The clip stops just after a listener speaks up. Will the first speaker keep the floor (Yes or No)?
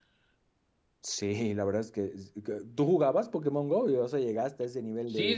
No